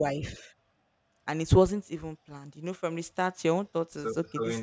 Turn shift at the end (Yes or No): Yes